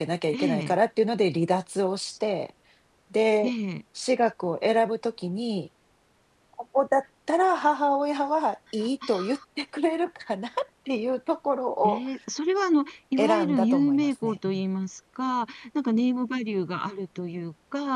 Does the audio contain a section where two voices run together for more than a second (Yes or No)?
Yes